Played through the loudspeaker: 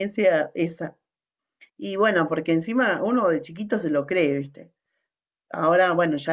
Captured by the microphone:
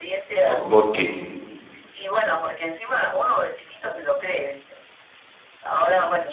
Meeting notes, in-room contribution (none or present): present